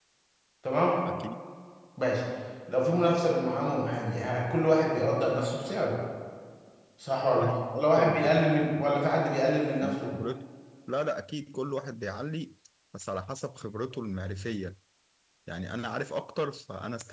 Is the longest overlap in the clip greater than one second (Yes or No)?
Yes